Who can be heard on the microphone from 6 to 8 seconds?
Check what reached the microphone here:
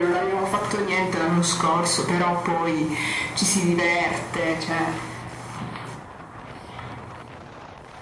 neither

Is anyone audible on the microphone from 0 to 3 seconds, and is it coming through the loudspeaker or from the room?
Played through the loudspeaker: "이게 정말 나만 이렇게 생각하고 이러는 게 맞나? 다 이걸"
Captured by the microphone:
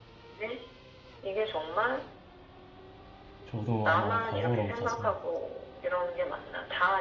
echo only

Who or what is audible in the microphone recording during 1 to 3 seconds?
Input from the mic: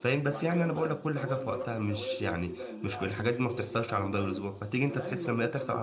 both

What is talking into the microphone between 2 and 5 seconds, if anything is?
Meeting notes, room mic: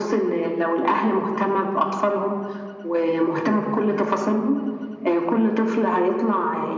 echo only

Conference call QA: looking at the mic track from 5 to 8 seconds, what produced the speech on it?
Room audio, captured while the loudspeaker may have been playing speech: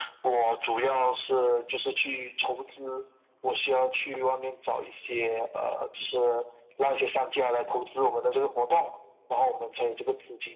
echo only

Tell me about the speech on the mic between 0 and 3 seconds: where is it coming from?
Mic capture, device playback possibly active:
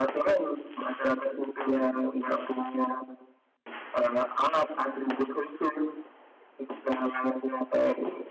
echo only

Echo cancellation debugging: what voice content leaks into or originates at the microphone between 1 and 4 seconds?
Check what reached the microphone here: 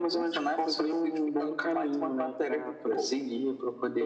echo only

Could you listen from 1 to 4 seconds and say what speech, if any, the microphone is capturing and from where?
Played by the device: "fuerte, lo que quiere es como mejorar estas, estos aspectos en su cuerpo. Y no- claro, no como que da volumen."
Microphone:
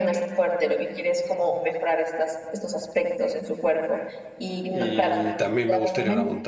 echo only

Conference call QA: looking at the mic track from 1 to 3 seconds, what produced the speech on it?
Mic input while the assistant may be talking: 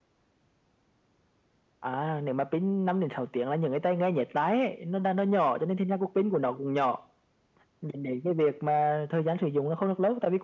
echo only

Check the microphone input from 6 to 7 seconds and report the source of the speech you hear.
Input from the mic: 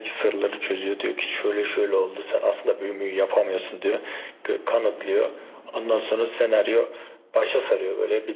echo only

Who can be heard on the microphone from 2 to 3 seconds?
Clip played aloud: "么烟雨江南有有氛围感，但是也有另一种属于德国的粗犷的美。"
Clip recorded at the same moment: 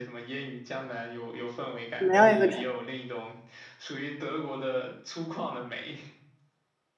both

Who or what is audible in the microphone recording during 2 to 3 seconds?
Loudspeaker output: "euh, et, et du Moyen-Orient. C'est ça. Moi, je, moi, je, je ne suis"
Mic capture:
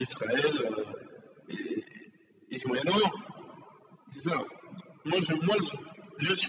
echo only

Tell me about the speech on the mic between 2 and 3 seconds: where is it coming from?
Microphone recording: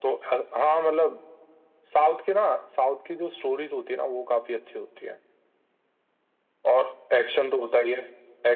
echo only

